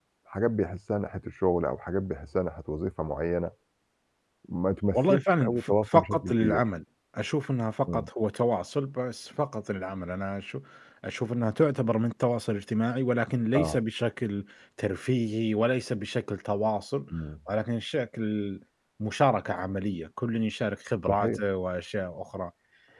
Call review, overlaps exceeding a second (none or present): present